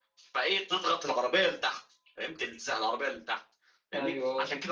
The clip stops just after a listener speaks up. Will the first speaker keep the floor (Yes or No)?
Yes